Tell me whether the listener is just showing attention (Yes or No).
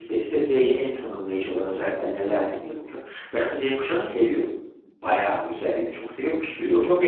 No